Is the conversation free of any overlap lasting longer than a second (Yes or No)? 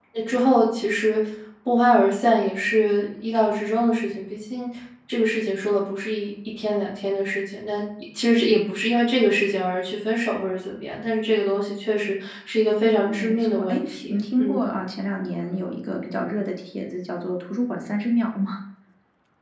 No